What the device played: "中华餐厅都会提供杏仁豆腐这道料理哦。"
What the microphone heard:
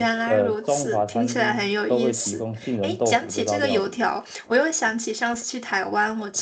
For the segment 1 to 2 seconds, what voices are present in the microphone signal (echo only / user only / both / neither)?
both